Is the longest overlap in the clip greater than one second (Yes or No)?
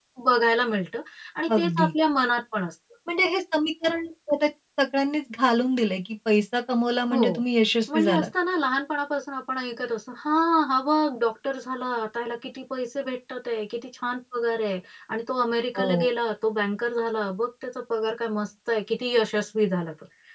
No